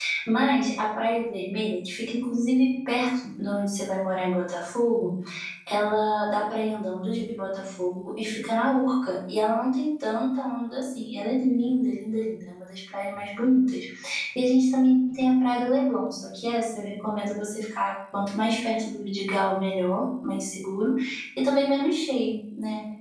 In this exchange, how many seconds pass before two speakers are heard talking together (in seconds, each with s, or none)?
none